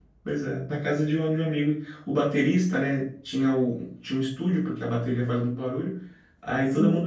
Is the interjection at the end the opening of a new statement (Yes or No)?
No